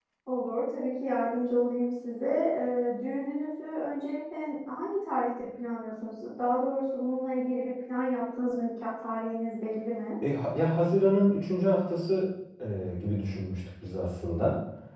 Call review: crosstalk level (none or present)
none